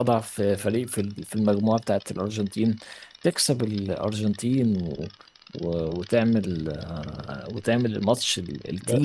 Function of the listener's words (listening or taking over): taking over